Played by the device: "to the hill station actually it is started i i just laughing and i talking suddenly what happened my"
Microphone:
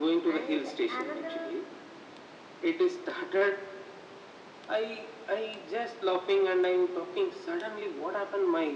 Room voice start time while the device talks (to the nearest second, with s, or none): 0 s